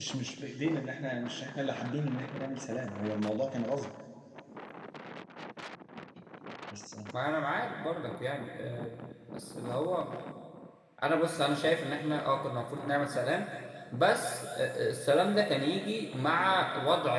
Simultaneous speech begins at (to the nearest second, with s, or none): none